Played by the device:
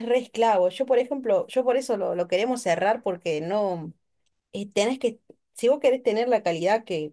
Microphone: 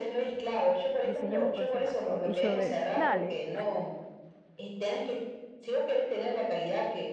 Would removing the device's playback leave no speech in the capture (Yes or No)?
No